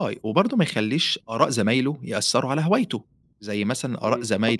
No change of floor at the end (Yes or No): No